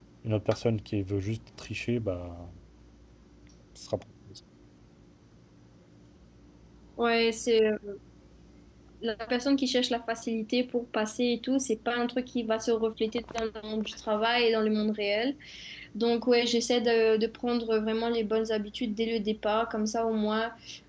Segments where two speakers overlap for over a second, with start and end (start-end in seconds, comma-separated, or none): none